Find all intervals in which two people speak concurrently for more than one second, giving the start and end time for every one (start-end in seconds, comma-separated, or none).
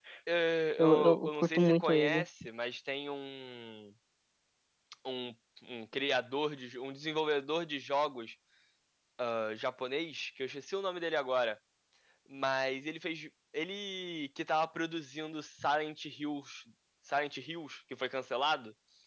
0.8-2.2